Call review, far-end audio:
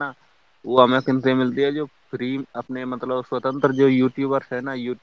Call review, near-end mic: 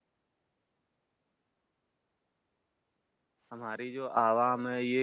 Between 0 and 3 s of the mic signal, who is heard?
neither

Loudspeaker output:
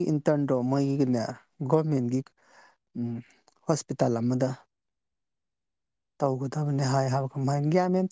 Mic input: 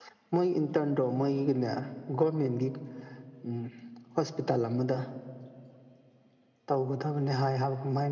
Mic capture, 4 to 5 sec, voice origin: echo only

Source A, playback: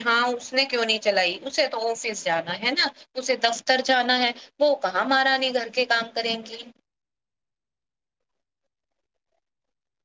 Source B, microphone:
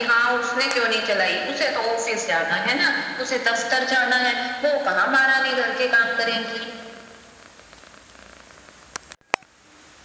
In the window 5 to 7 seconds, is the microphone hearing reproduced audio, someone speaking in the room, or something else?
echo only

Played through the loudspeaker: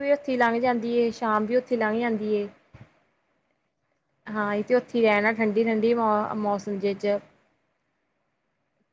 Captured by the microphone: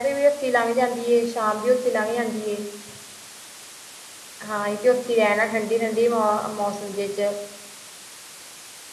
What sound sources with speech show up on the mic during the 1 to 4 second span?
echo only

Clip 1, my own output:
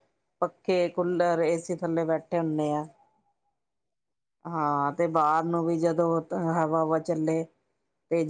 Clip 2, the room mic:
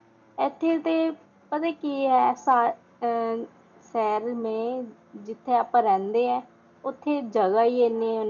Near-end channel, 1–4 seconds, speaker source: user only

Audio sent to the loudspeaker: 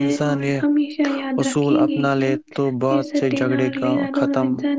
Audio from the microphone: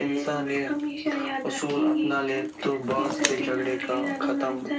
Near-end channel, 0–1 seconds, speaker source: echo only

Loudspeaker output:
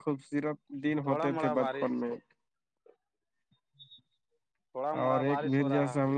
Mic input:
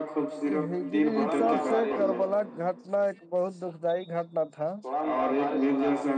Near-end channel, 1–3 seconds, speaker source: both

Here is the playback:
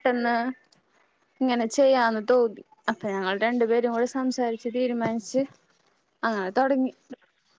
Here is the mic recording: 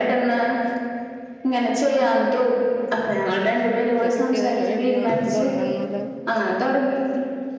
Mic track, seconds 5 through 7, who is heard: both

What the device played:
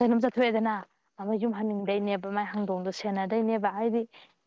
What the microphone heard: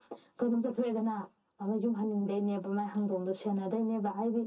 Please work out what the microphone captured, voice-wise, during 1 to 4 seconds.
echo only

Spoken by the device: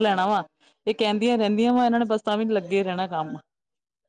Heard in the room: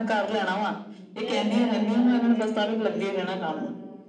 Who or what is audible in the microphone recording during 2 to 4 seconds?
both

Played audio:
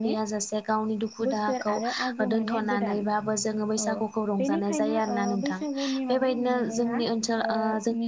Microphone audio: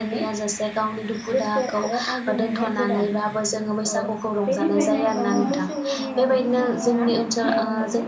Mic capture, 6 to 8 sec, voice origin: both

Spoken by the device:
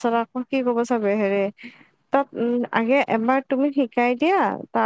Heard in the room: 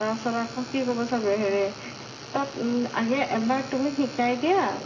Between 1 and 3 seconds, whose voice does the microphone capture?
echo only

